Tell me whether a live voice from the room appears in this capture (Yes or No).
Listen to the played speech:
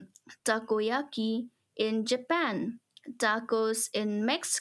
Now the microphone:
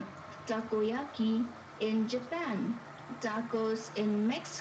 No